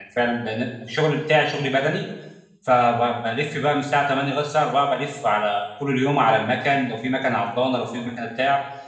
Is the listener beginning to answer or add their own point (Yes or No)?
No